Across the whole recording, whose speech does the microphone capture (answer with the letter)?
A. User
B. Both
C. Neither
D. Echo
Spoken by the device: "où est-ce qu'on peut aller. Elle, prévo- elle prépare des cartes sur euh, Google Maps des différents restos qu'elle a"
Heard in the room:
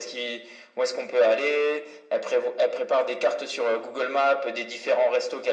D